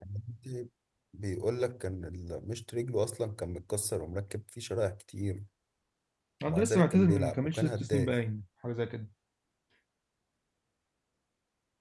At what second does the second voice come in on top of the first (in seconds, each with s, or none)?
6.5 s